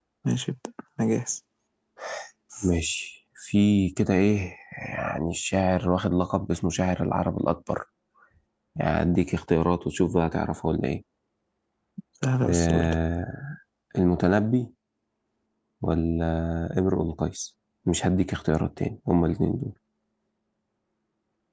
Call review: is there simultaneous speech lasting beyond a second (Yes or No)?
No